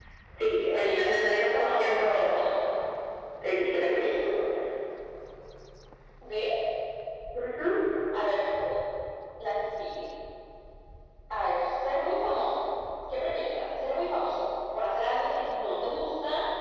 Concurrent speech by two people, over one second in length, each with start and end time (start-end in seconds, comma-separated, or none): 0.6-2.4